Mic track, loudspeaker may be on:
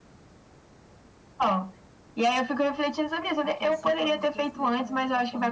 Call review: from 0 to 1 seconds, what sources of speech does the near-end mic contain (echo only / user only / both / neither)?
neither